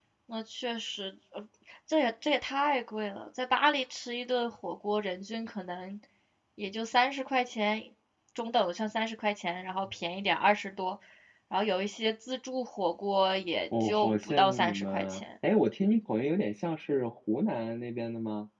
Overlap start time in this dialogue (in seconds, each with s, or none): 13.7 s